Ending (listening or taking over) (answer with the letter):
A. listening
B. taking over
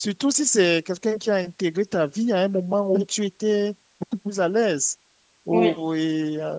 A